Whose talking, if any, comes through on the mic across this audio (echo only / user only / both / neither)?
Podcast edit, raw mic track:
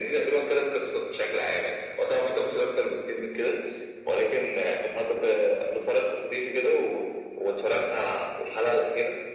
echo only